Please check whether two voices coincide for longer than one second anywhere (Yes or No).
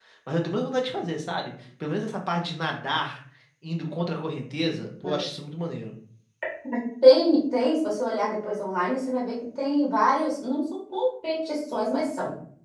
No